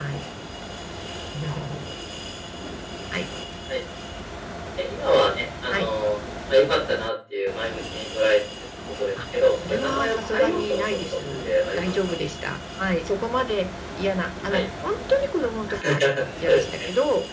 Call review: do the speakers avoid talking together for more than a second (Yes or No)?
No